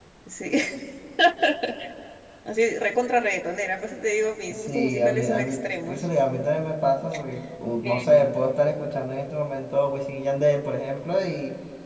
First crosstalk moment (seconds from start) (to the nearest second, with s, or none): 4 s